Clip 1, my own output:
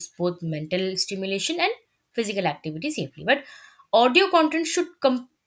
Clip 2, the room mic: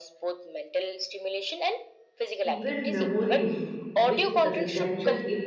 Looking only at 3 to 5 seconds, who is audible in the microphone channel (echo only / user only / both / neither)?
both